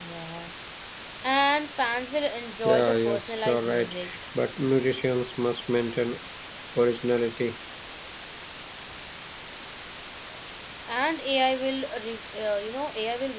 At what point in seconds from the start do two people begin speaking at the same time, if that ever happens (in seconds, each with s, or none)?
2.6 s